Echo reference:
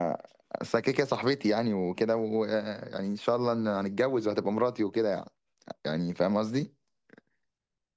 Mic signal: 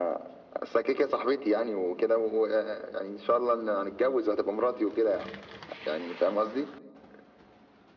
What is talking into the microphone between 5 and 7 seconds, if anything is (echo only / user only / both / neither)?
echo only